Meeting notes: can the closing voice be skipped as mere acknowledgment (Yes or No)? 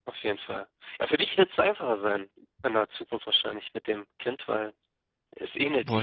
Yes